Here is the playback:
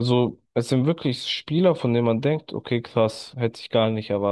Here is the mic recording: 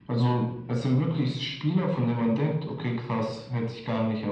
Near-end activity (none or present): none